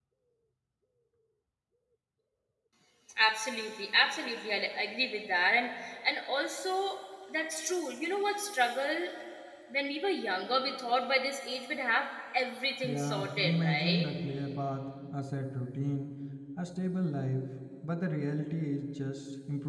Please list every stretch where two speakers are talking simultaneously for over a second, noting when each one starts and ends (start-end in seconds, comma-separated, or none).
12.8-14.1